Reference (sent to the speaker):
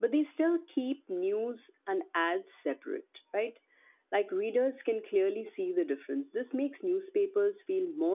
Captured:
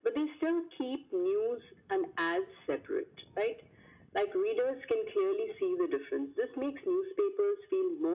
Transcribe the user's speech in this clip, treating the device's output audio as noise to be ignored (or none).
none